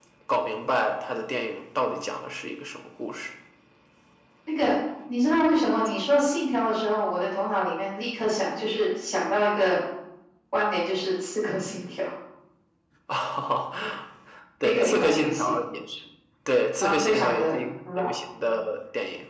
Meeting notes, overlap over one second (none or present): present